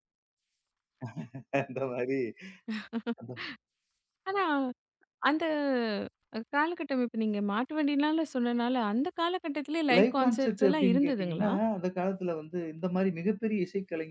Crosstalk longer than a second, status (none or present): present